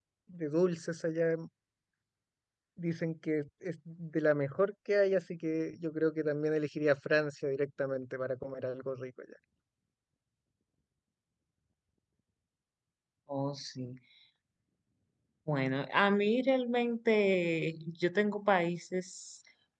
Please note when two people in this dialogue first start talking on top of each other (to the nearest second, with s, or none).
none